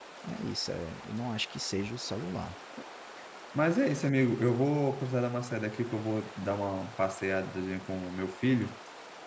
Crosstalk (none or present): none